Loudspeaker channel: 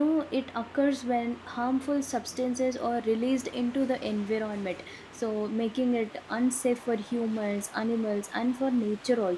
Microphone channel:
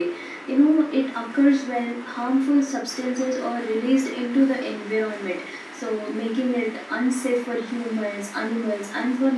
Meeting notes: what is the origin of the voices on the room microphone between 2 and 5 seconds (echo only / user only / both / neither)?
echo only